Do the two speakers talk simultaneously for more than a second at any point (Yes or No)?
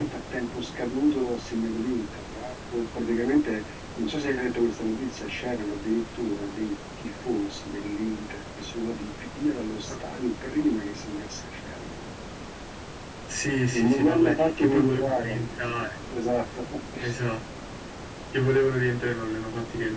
Yes